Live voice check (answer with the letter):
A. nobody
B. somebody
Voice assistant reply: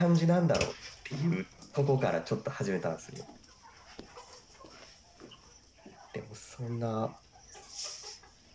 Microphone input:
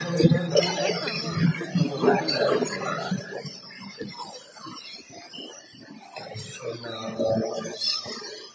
B